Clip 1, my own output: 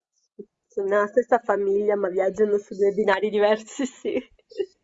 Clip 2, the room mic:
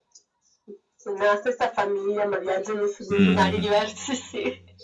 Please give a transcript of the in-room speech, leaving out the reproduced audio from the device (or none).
mhm, mhm.